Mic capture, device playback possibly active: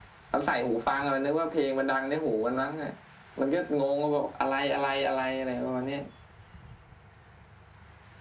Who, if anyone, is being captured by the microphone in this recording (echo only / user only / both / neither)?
echo only